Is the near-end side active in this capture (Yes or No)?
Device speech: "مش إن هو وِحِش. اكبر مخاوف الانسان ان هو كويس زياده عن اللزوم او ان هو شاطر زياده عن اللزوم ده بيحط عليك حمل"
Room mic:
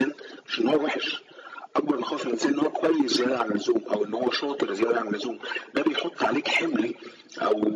No